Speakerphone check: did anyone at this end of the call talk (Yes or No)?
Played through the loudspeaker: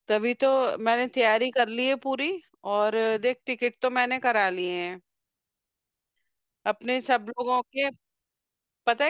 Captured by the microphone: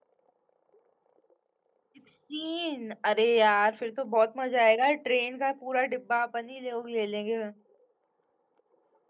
Yes